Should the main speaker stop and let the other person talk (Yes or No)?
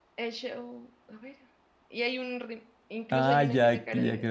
Yes